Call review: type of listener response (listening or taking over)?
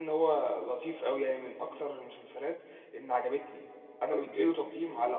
listening